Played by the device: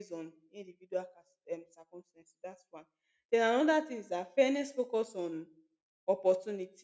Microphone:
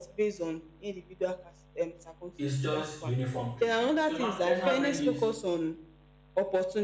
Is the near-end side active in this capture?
Yes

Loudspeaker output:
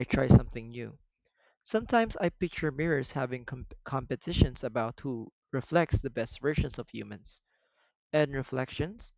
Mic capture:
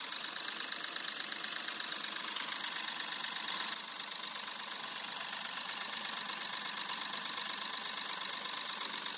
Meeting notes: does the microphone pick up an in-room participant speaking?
No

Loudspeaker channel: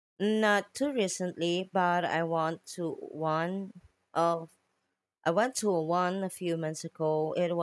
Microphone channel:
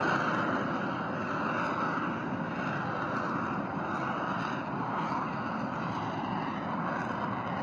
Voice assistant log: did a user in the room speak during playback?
No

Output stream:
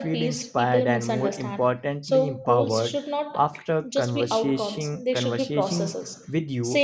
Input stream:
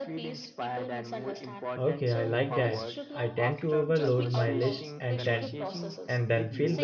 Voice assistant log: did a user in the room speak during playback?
Yes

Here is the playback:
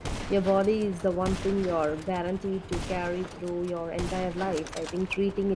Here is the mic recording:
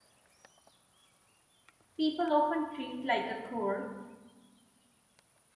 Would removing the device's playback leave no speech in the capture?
No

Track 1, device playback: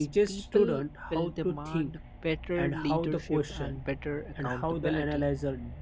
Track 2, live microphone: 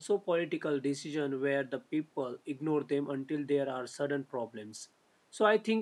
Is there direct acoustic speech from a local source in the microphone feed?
Yes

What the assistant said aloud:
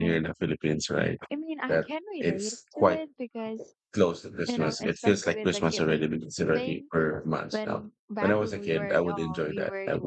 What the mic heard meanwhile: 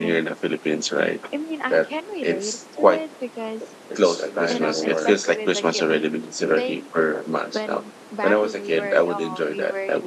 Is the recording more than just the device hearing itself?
Yes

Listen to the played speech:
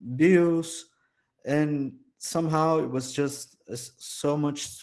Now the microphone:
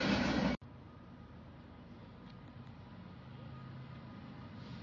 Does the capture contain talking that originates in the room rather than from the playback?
No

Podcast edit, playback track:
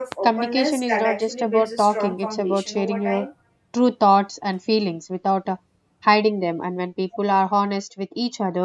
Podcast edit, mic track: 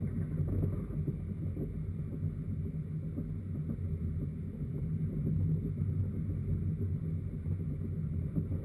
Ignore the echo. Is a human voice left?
No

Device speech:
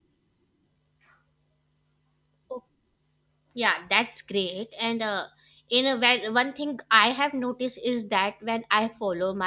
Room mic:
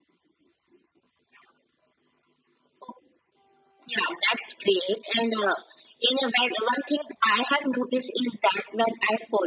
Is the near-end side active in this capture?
No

